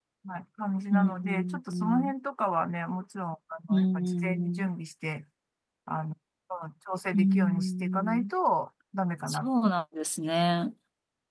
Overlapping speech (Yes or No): Yes